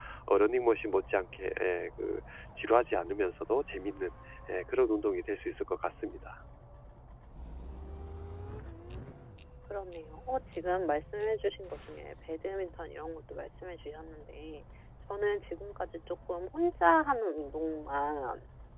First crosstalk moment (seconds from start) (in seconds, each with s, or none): none